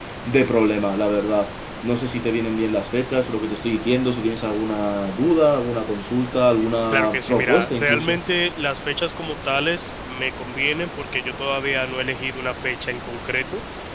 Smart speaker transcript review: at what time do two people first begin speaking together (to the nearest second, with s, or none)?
7 s